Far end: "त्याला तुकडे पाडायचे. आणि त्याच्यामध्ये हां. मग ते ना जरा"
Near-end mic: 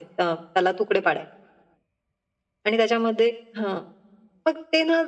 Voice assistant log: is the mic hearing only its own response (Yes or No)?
Yes